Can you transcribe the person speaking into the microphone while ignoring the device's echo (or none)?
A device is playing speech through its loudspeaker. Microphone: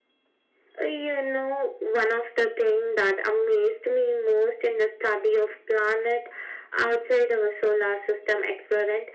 none